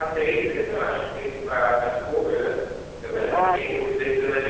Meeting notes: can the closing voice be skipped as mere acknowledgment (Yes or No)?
Yes